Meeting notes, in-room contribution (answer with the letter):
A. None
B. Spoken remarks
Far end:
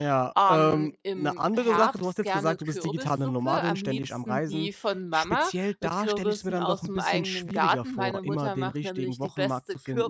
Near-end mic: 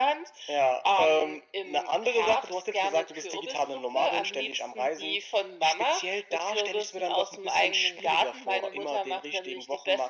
A